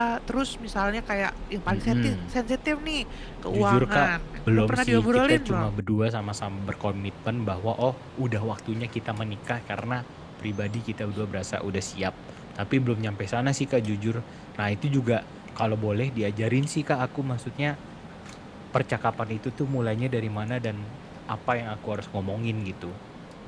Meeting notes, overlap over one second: present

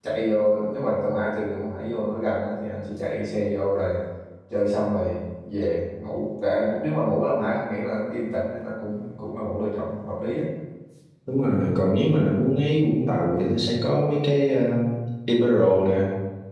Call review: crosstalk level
none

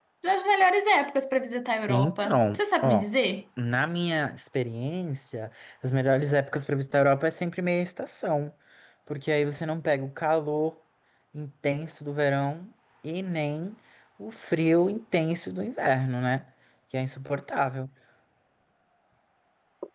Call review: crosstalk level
present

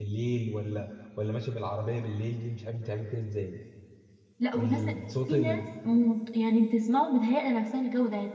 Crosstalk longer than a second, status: none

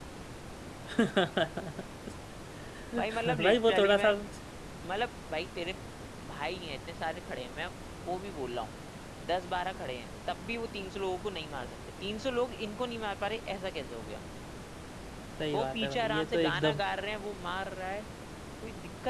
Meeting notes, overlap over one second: present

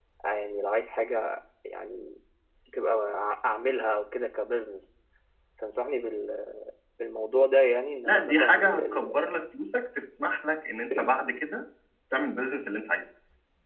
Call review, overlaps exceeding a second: present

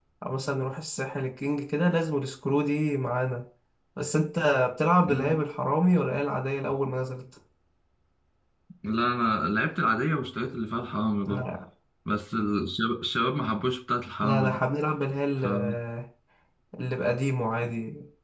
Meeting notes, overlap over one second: none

